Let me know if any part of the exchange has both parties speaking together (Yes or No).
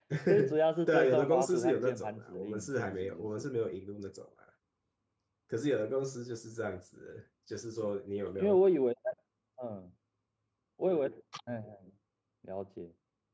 Yes